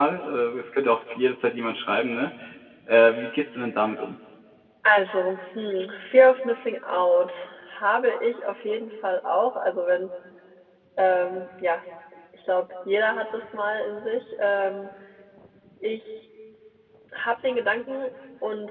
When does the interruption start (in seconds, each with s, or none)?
none